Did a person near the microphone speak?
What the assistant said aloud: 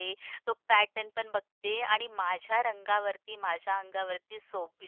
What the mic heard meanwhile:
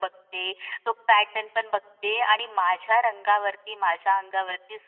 No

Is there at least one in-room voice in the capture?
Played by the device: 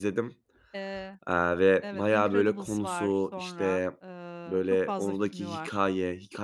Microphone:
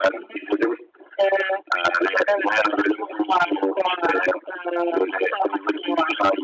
No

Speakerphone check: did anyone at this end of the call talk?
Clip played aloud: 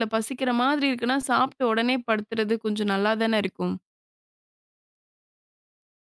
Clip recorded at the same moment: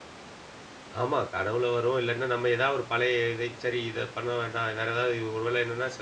Yes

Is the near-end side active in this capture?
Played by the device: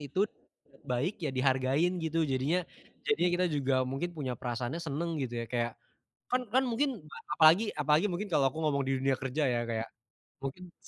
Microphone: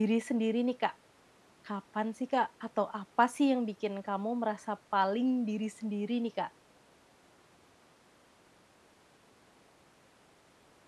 Yes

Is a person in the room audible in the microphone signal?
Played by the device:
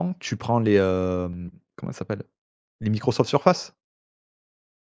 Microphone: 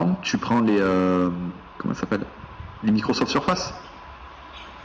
No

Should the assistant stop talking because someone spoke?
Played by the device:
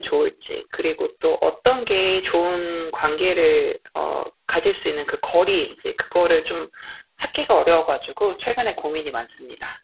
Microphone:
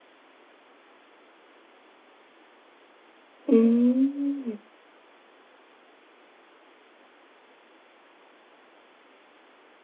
Yes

